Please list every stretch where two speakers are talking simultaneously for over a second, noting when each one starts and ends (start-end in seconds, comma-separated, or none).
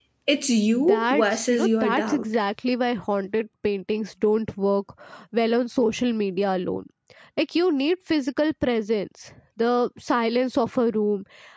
0.7-2.2